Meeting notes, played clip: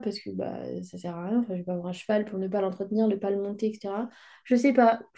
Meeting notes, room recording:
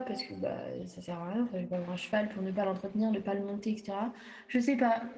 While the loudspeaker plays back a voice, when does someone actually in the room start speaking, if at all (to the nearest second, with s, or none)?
none